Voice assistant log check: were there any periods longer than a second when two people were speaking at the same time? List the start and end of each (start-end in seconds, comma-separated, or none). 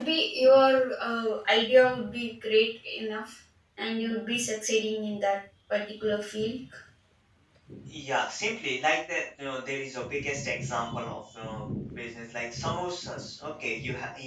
none